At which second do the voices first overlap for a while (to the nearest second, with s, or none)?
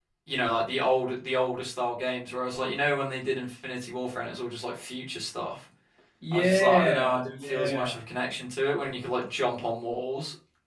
6 s